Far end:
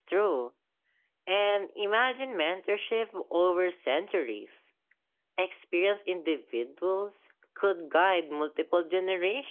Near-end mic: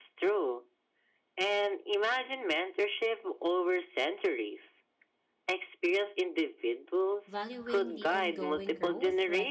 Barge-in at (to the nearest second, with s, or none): 7 s